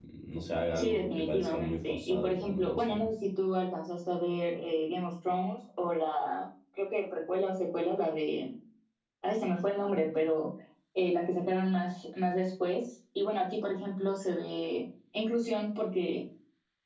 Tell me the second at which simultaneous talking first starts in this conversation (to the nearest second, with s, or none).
1 s